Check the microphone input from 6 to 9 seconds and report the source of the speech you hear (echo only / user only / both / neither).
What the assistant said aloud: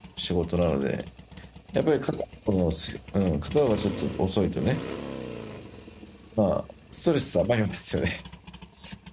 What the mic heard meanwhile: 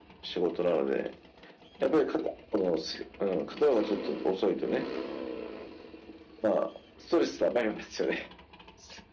echo only